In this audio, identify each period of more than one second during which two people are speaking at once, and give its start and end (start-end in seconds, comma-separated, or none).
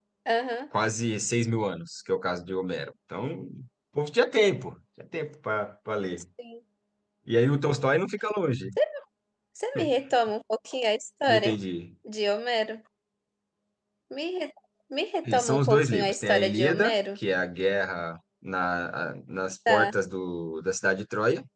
15.4-16.9